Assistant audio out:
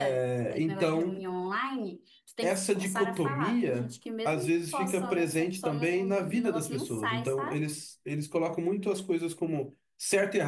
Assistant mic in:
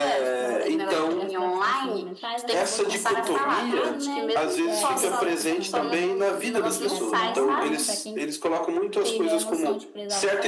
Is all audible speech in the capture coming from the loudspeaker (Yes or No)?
No